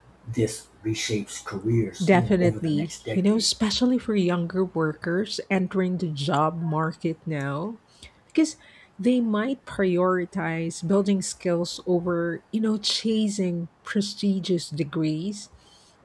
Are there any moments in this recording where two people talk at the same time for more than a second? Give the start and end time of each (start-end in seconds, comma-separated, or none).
2.0-3.4